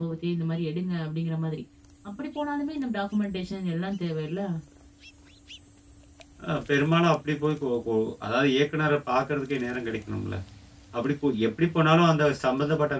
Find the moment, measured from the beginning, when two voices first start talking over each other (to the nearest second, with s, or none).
none